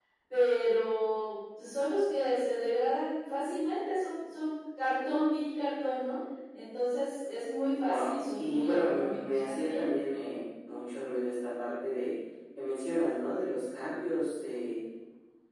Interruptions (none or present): present